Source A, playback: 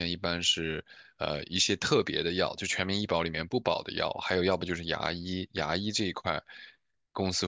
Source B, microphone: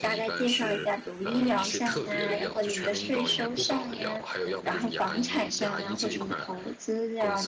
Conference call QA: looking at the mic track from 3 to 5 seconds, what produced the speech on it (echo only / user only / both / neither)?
both